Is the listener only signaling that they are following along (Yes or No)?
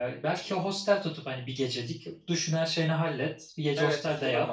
No